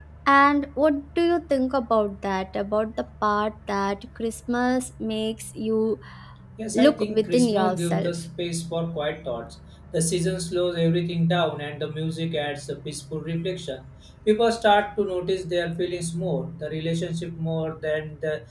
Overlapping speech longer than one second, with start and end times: 6.7-8.1

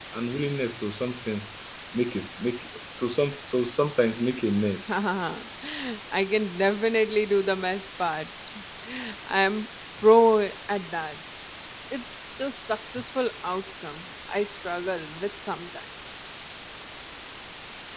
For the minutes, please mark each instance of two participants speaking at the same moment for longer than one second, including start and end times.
none

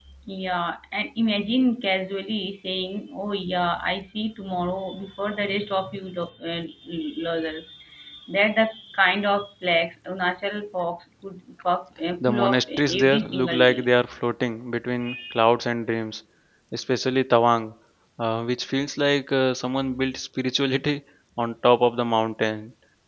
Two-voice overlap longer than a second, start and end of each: 12.2-13.8

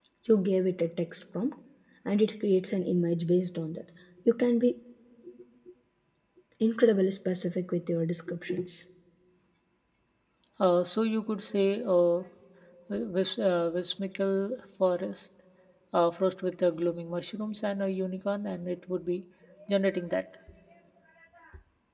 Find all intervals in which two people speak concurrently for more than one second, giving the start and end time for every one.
none

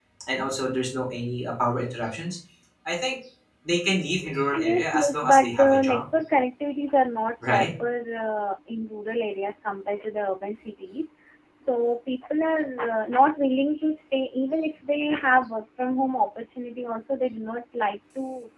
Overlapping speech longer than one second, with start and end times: 4.6-6.0

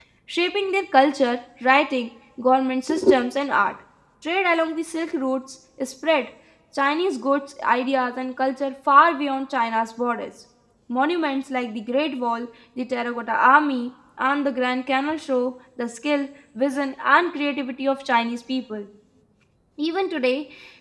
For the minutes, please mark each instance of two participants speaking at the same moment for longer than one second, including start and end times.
none

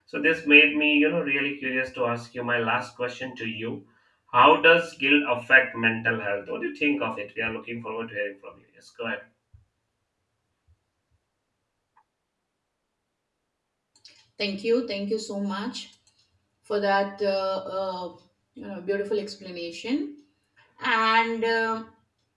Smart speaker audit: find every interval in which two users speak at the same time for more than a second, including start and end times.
none

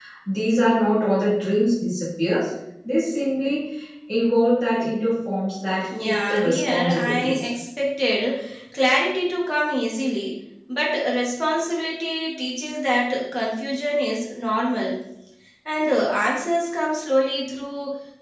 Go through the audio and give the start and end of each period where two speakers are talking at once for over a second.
6.0-7.5

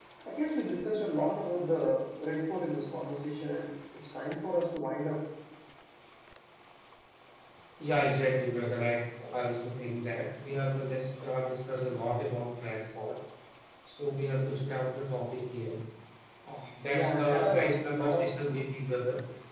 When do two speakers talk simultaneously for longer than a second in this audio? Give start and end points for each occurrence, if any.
16.9-18.3

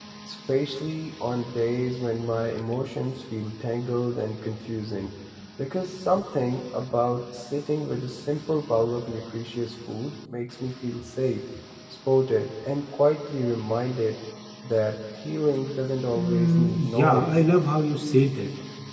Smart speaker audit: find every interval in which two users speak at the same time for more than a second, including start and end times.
16.1-17.4

